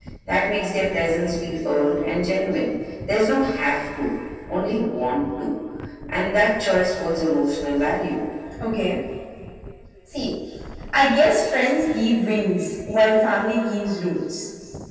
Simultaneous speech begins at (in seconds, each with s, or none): none